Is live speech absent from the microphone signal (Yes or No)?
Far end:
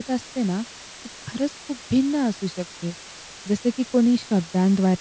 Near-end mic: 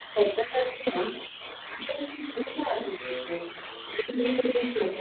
No